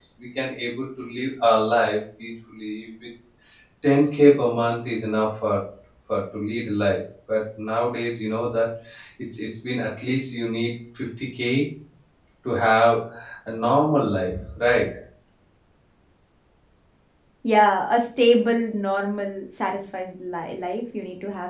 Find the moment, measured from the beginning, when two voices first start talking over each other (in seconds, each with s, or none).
none